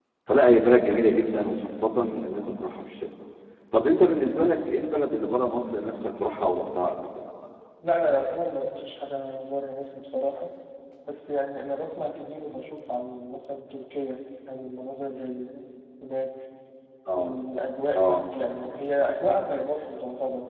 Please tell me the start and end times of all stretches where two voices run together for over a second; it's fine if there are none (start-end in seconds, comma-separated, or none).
none